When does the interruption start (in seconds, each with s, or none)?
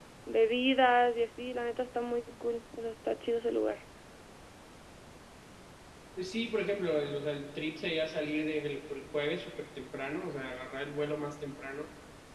none